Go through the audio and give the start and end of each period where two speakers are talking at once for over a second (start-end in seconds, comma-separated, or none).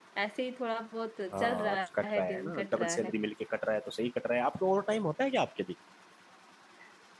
1.3-3.1